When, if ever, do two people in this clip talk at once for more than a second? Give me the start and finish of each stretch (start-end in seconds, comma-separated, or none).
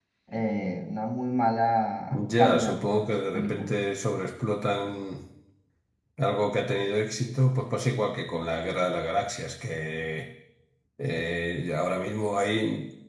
2.1-3.8